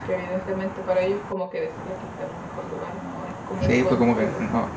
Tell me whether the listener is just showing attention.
No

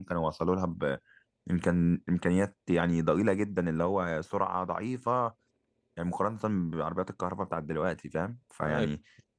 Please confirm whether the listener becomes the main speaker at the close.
No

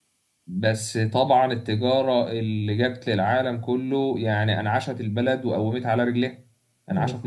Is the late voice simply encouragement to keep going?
Yes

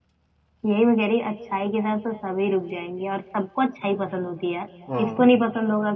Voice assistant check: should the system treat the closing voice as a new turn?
No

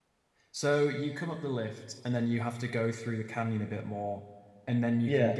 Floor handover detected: No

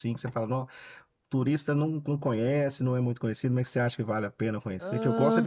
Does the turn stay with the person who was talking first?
Yes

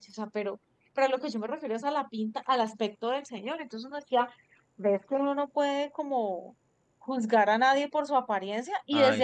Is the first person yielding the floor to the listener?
No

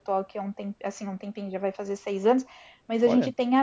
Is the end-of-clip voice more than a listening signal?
No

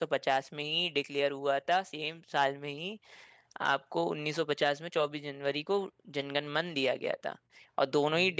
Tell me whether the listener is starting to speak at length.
No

